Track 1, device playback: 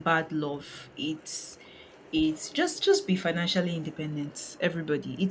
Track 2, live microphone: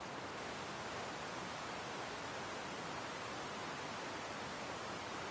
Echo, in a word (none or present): none